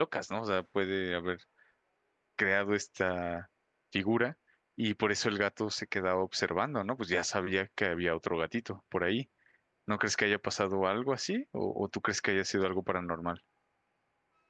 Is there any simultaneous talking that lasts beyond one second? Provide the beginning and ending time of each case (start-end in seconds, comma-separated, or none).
none